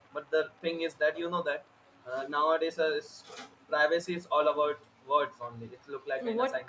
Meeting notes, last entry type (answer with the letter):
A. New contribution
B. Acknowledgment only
A